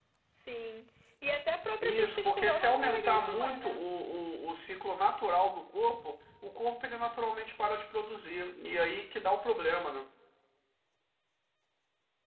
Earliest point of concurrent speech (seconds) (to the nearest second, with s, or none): 2 s